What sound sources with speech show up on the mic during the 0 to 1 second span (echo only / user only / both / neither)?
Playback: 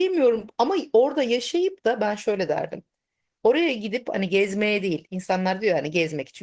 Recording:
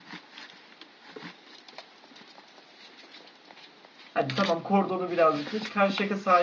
neither